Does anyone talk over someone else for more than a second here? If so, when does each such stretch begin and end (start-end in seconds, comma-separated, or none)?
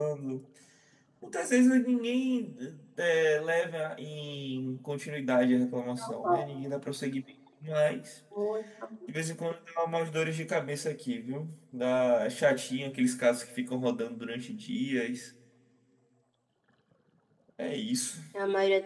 none